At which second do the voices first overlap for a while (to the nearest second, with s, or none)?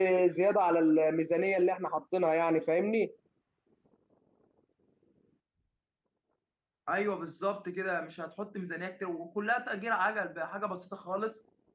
none